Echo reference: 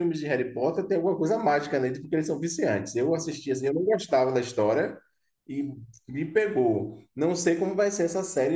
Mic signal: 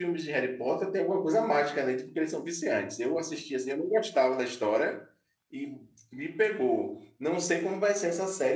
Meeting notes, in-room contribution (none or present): none